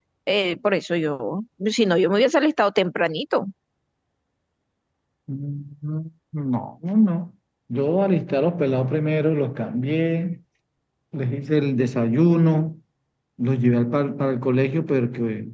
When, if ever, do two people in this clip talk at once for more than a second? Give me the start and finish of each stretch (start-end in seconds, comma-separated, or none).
none